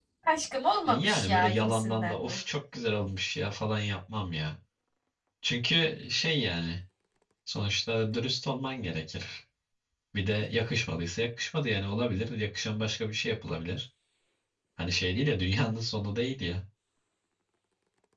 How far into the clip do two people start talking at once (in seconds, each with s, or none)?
0.8 s